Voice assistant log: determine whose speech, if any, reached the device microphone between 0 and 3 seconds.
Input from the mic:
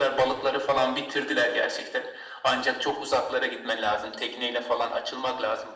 echo only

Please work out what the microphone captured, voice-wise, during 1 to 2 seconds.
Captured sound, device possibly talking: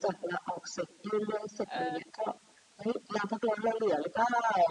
both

